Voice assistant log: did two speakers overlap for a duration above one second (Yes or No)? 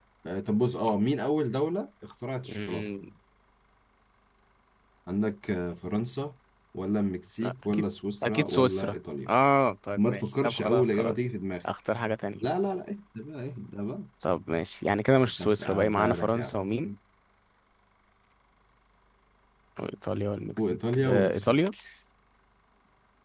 Yes